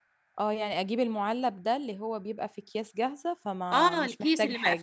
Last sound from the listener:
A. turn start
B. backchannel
A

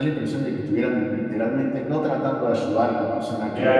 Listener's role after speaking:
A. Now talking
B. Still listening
A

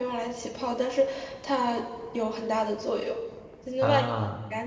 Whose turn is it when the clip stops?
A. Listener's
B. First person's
B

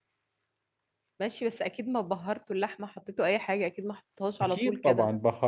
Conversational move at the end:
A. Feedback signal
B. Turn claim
B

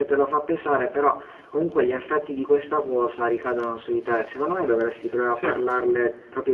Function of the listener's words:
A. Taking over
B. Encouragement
B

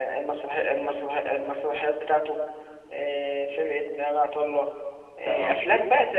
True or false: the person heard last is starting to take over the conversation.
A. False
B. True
A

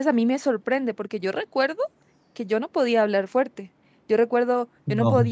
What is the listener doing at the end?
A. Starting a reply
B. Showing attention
B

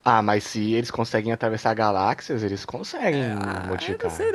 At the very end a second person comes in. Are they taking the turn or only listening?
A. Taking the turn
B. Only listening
A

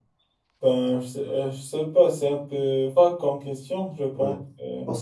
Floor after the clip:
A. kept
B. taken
B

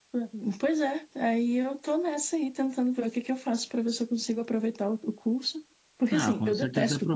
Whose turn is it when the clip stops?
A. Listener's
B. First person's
A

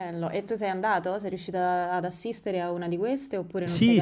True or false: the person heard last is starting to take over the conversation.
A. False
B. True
B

